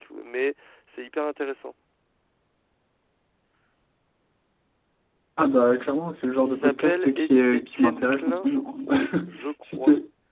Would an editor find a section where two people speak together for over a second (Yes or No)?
Yes